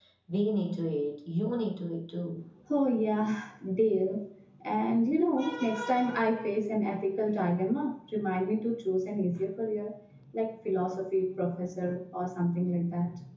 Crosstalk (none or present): none